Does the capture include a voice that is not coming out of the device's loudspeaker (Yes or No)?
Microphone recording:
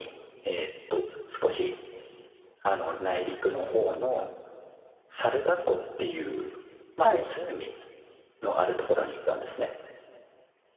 Yes